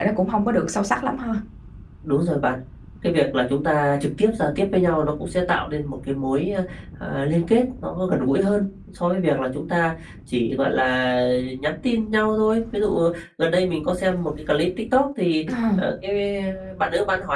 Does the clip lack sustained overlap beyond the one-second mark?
Yes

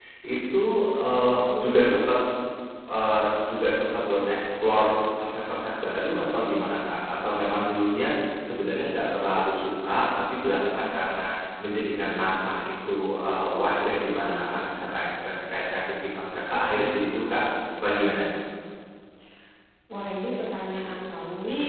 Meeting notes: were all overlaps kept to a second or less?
Yes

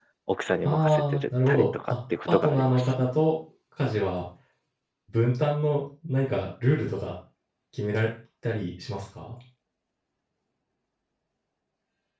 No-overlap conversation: No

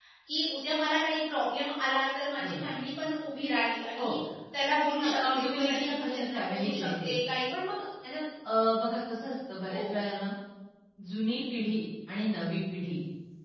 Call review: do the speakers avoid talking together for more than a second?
No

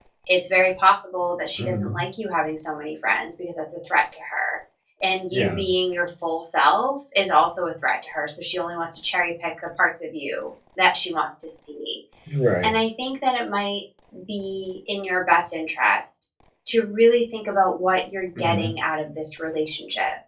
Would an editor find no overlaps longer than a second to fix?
Yes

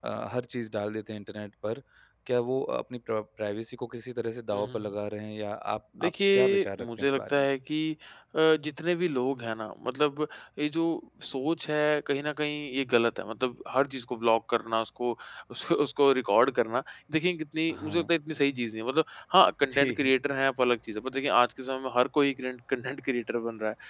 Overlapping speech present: Yes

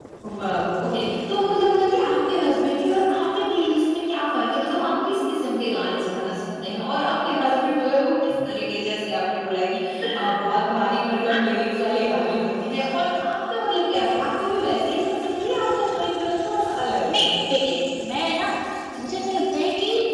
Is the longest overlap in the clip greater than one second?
No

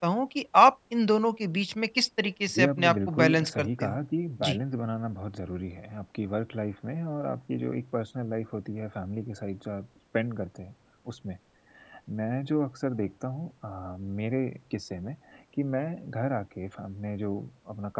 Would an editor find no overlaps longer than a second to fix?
No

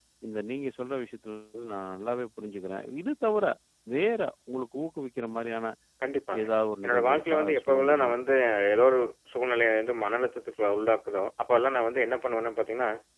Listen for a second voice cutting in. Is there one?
Yes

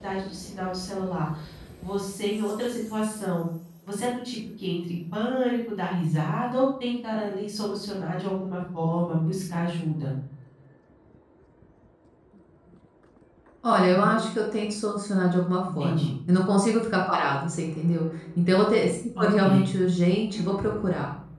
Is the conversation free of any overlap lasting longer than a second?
Yes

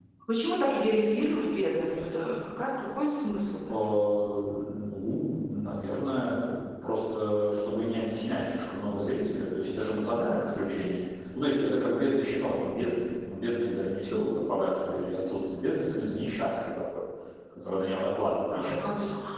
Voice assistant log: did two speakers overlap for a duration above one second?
No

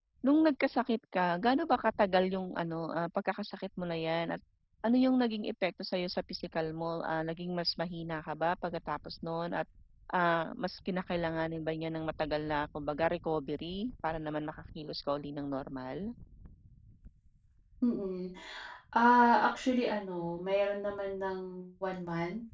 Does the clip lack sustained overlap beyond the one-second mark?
Yes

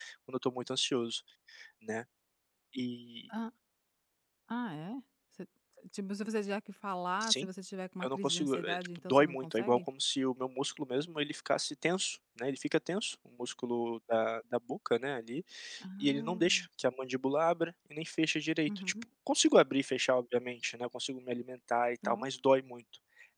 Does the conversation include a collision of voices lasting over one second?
Yes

